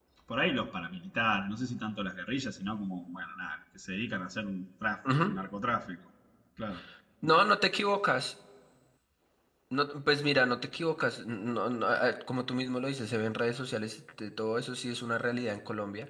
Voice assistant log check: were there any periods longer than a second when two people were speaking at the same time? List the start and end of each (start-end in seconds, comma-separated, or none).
none